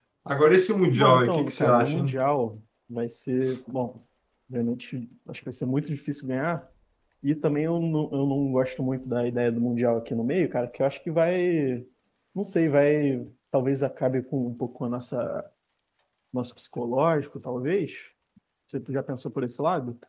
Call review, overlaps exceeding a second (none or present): present